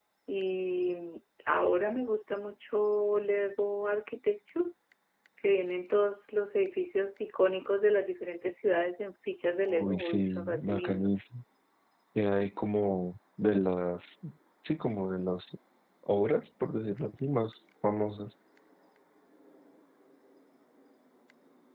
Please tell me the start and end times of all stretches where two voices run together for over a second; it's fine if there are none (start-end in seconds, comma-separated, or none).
9.7-11.1